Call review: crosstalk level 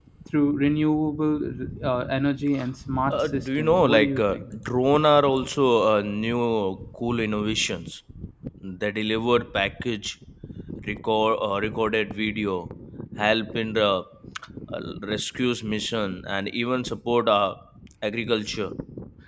present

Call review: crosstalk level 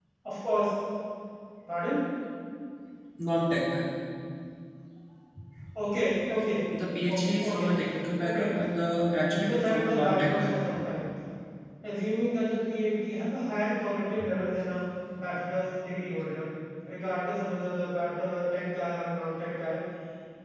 present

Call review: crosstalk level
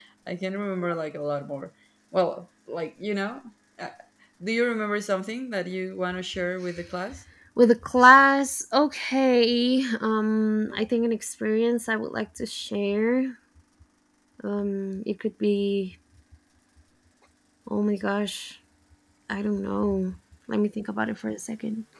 none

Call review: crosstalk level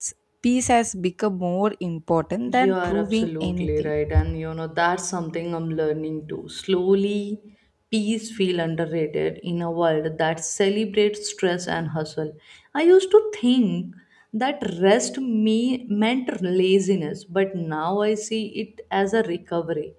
present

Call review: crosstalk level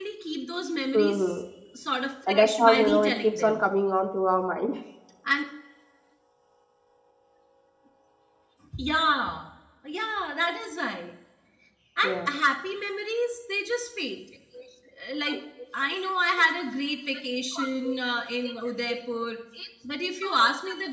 present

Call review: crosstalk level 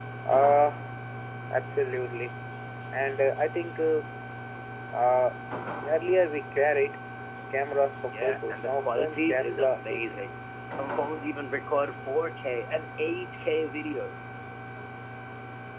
present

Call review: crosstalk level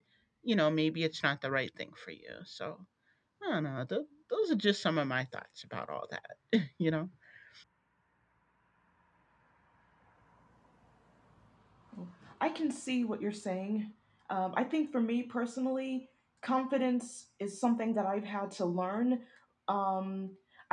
none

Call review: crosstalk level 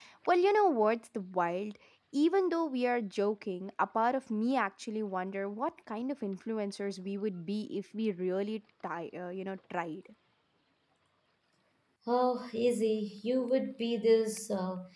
none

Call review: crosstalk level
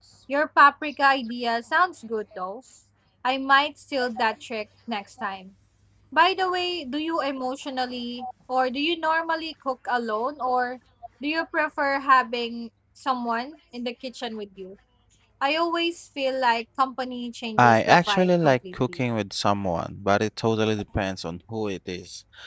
present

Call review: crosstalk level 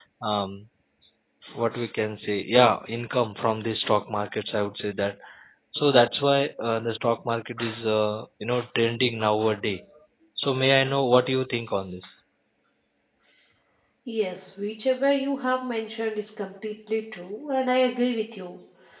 none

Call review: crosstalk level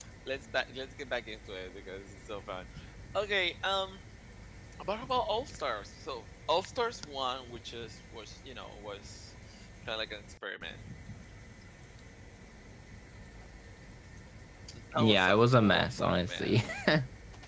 present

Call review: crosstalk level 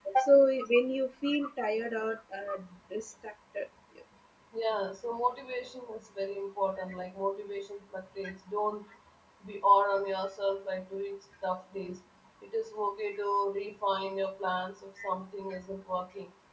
none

